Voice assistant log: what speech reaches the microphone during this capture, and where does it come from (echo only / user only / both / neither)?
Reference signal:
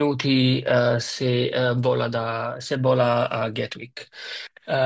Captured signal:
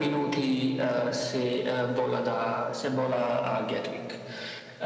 echo only